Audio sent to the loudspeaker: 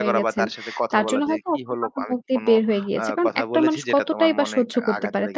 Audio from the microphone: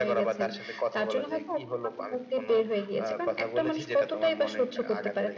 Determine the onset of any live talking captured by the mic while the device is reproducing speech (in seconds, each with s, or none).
none